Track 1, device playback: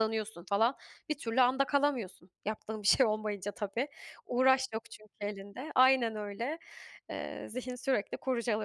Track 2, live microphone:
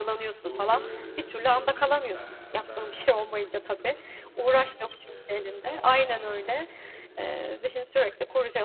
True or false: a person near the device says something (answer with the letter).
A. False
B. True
B